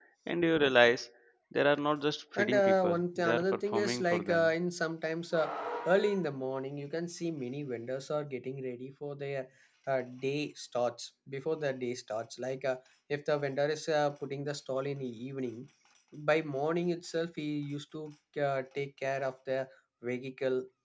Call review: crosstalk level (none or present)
present